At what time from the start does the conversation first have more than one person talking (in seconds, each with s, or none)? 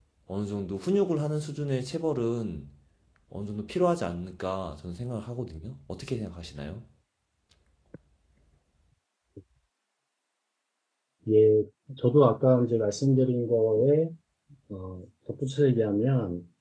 none